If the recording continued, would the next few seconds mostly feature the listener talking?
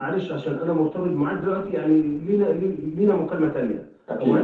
No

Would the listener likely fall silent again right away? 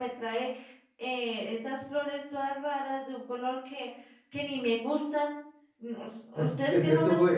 No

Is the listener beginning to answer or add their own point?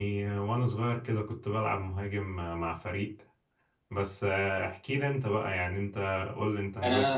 Yes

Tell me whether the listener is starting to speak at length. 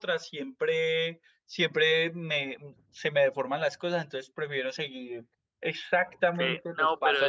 Yes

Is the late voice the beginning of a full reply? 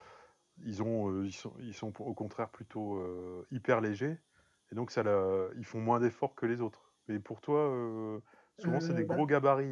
No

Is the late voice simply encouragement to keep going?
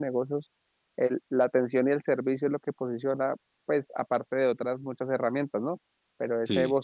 Yes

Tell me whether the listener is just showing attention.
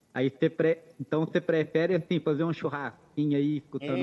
No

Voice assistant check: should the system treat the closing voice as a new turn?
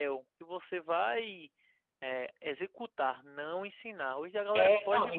Yes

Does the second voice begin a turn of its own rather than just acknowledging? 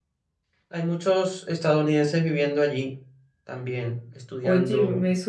Yes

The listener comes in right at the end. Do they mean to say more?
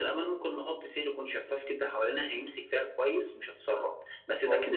No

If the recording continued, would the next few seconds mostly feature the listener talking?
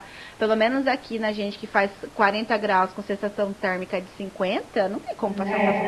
Yes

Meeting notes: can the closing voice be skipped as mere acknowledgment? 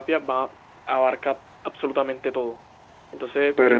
No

